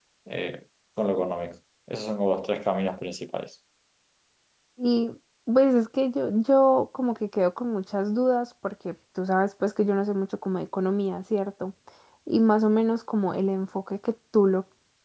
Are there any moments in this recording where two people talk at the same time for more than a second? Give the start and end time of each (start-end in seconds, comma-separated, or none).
none